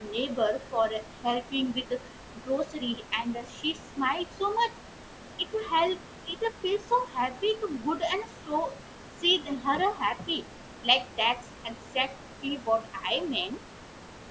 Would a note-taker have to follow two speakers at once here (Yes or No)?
No